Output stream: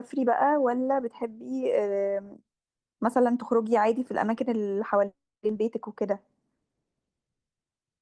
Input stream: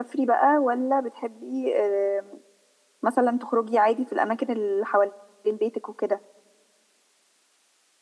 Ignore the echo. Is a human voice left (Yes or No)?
No